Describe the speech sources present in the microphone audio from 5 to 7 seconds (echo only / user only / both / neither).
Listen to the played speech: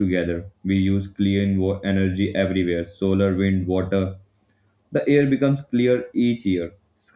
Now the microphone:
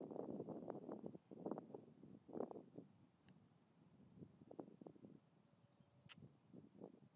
neither